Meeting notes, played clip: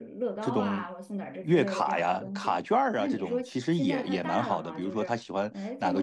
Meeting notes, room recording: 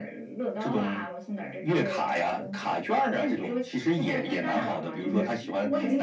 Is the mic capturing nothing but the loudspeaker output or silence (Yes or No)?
No